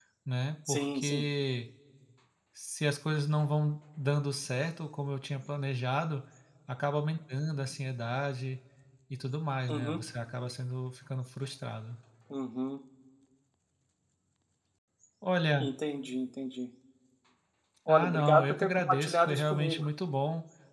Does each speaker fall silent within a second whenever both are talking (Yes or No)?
No